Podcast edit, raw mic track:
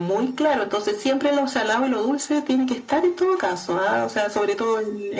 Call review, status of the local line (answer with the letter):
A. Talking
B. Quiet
B